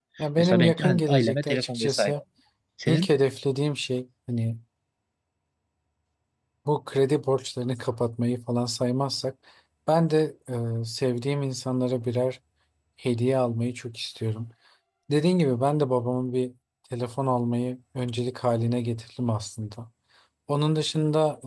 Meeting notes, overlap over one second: present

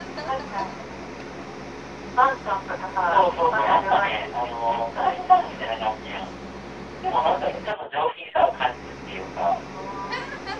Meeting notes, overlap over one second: present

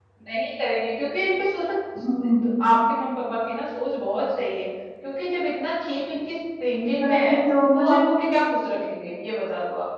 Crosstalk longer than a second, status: none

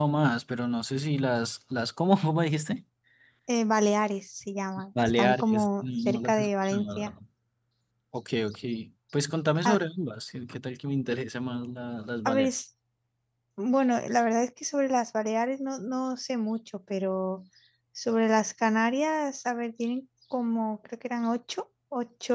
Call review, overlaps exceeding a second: present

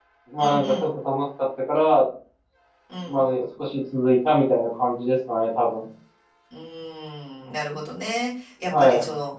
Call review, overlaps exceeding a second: none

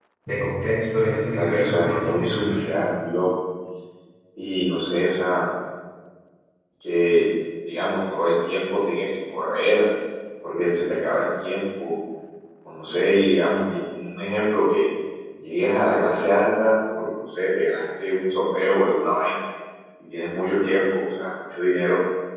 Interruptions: present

